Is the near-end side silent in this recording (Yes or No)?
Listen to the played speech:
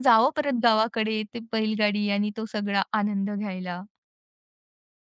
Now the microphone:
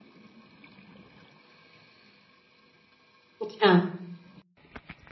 No